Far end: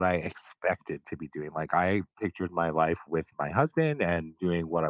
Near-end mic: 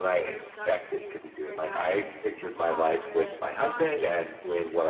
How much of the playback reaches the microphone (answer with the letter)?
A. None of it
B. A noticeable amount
B